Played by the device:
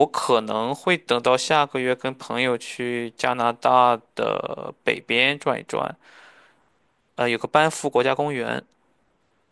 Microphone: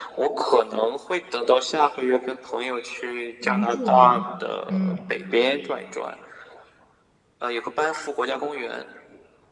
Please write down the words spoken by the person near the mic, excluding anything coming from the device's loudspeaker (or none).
原住民，嗯，